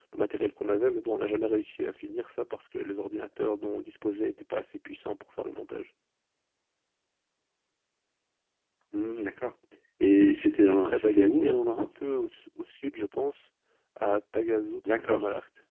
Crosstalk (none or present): present